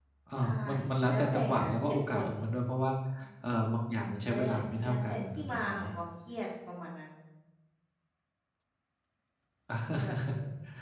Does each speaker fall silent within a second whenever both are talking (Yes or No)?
No